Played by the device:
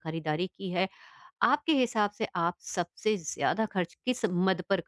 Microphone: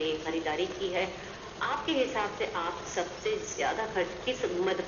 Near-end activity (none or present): none